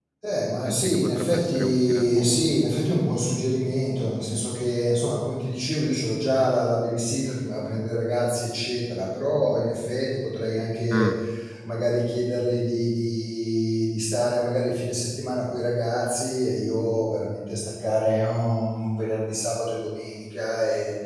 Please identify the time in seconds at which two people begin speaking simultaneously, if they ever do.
1 s

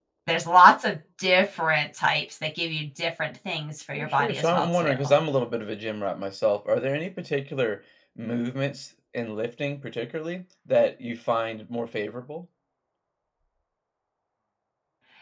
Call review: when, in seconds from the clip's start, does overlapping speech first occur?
4 s

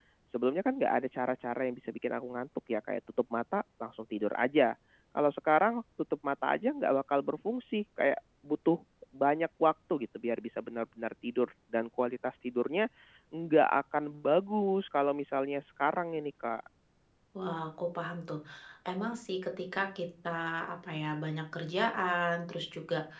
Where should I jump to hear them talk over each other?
none

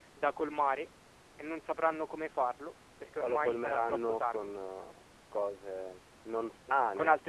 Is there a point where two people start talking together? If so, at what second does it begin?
3 s

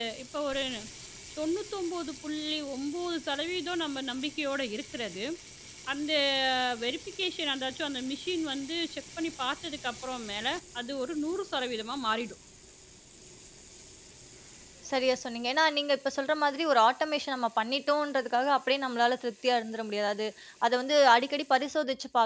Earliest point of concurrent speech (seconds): none

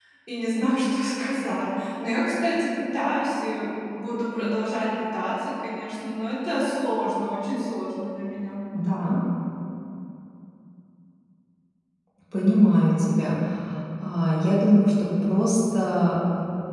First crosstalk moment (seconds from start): none

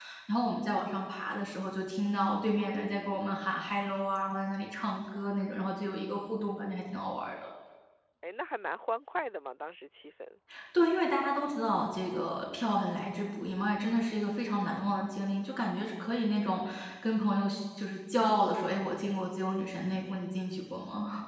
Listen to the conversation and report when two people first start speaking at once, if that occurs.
none

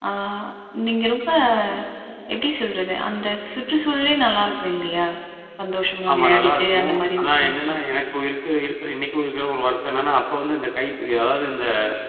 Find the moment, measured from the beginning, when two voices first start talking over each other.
6 s

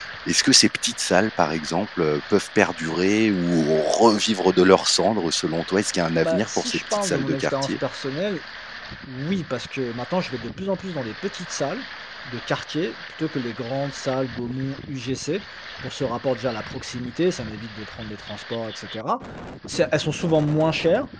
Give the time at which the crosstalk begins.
6 s

